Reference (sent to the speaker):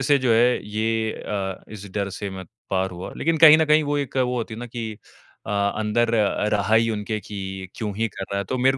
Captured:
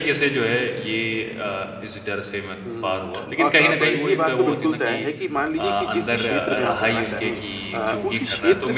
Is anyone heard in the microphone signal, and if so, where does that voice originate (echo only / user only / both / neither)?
both